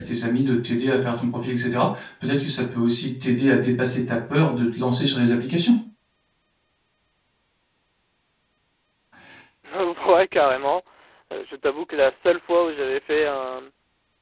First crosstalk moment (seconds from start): none

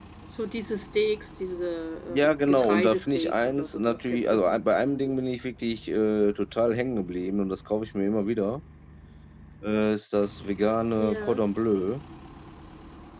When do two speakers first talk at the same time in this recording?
2 s

